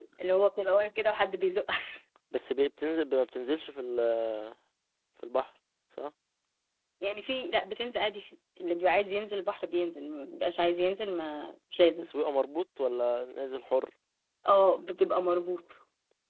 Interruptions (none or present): none